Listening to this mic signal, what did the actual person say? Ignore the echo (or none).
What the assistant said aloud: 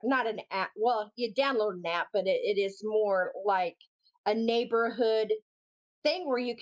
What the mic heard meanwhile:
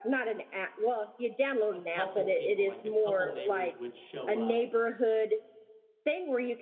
a couple people, like a couple neighbors would show up,